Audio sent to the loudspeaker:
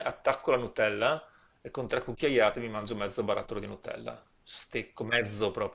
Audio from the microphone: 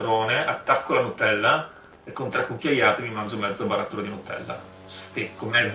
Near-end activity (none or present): none